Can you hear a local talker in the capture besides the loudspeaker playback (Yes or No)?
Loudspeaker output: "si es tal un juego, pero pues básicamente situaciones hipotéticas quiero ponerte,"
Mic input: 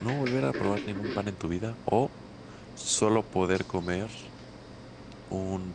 Yes